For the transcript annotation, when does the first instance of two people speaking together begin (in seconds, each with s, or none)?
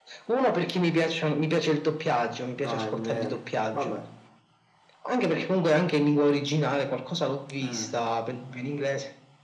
2.6 s